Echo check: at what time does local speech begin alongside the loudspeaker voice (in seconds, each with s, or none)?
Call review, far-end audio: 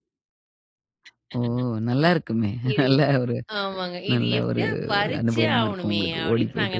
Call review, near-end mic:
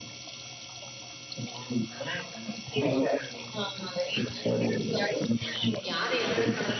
5.9 s